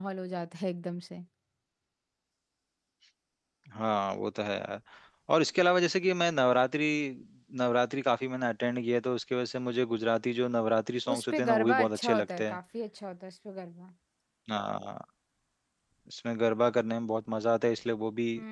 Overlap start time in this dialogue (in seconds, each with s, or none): 11.1 s